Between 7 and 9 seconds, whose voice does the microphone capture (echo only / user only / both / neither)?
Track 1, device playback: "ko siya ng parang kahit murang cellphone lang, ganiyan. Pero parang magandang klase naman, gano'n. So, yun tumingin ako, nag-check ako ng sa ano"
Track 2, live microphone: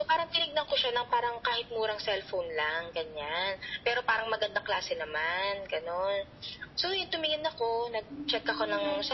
both